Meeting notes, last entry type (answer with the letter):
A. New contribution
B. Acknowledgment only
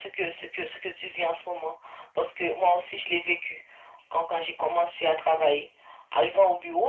B